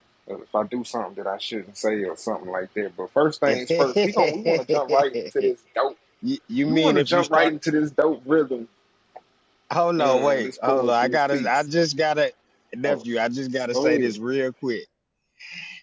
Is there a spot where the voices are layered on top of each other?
Yes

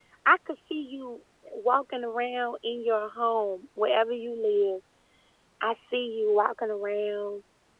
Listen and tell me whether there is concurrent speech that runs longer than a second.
No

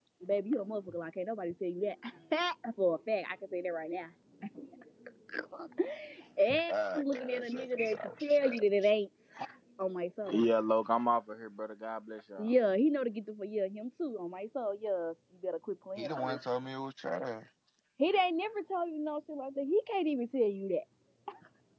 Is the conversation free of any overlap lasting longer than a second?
No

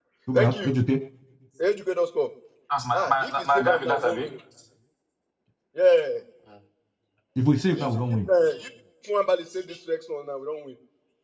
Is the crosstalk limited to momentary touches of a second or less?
No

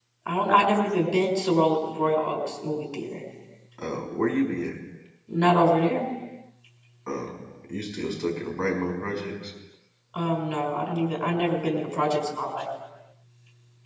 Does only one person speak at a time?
Yes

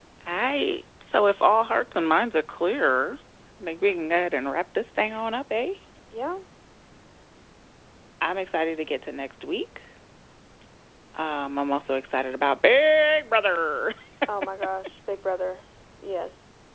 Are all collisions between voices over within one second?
Yes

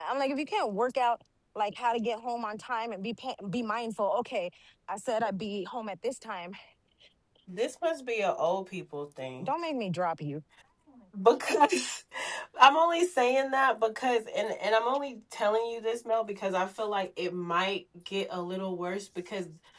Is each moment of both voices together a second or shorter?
Yes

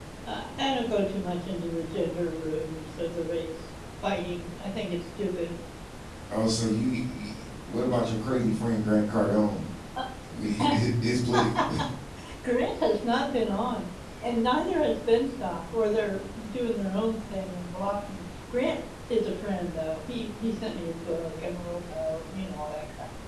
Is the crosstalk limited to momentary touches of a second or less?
Yes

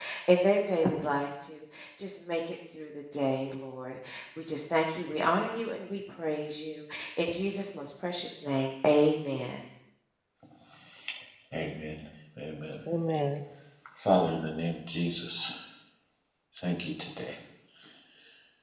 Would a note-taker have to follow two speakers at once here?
No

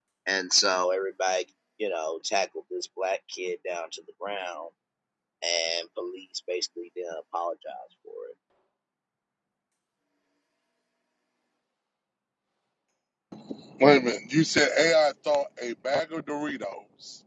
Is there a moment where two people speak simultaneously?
No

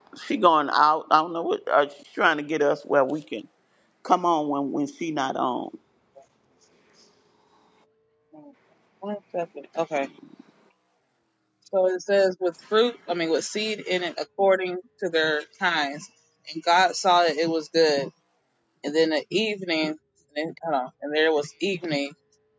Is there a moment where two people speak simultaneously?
No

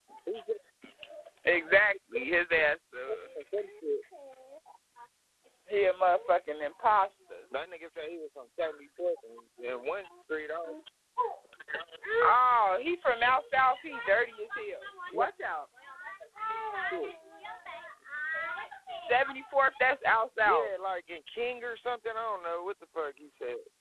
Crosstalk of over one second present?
No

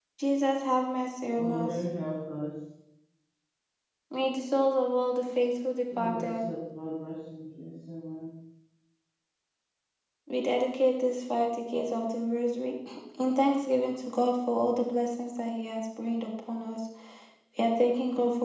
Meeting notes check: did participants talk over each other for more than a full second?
No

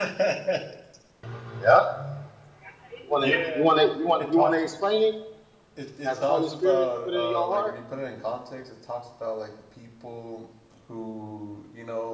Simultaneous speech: Yes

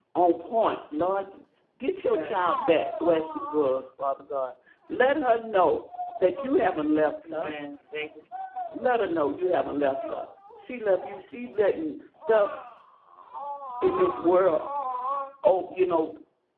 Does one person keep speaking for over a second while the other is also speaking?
No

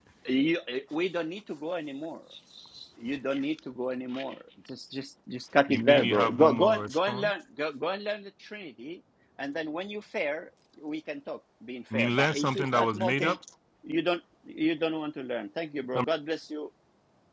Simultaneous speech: Yes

